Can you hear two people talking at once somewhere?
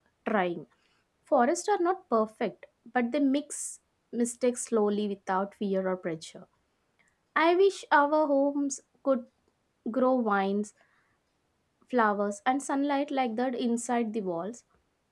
No

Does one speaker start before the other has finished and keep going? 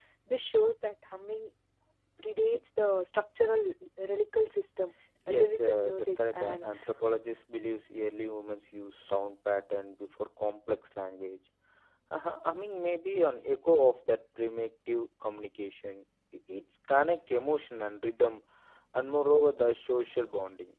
Yes, from 5.3 s

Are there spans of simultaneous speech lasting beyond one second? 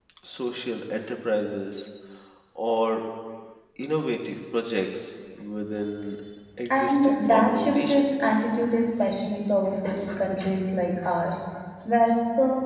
Yes, from 6.7 s

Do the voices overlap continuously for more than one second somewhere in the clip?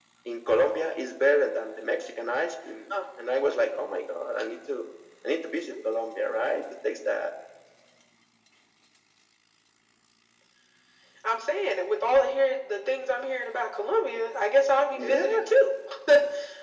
No

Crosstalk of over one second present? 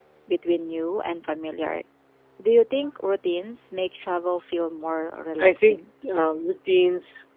No

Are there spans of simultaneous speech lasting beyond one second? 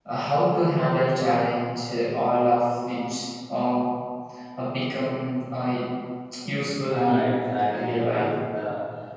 Yes, from 6.9 s

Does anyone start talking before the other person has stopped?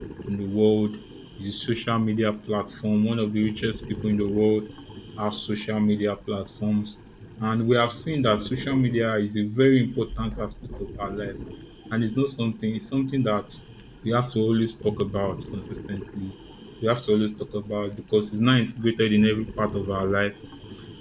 No

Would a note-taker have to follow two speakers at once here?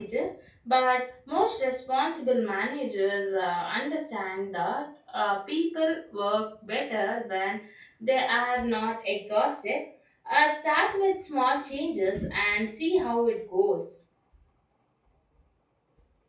No

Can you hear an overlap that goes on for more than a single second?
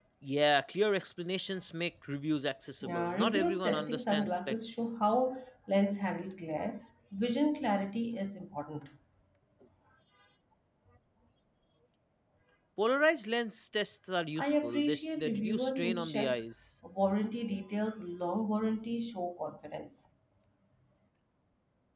Yes, from 2.8 s

